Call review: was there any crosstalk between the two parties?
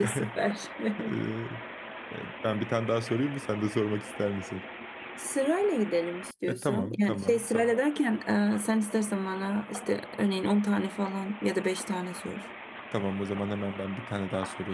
Yes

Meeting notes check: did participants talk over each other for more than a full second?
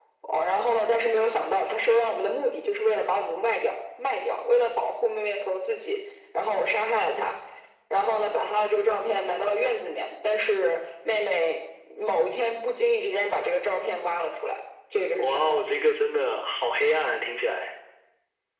No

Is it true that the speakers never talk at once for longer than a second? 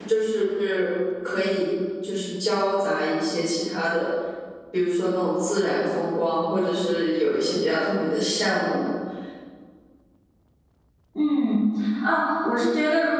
Yes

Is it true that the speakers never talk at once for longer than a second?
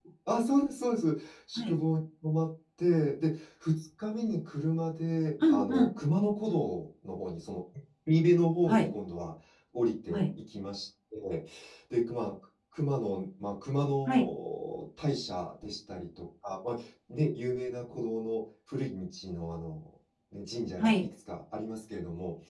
Yes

